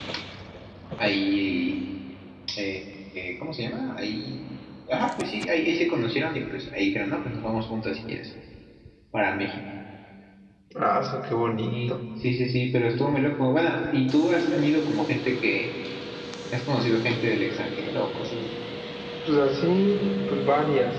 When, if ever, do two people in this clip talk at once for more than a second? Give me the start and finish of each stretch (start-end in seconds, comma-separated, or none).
none